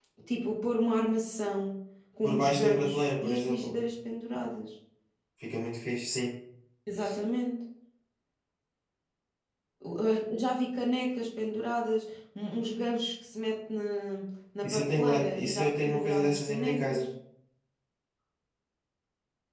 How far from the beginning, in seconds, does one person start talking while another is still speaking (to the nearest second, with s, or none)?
2 s